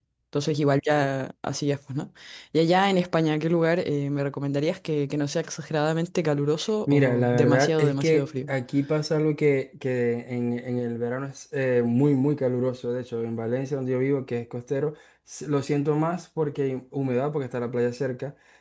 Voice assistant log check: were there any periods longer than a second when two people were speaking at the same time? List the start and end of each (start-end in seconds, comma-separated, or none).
6.9-8.5